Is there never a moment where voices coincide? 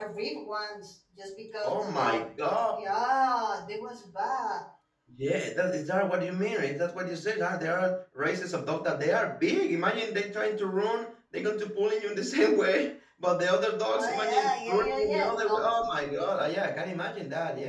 No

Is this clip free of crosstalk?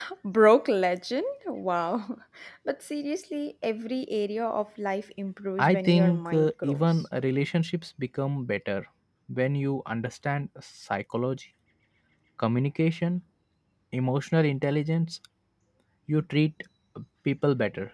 No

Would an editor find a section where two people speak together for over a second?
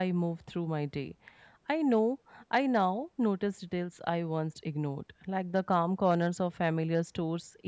No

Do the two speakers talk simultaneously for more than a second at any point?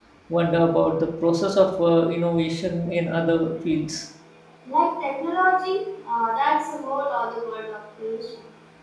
No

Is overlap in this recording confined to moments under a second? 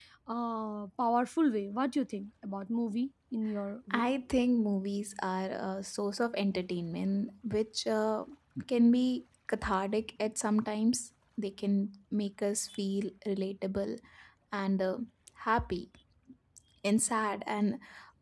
Yes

